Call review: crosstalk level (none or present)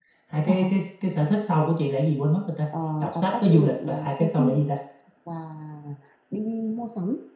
present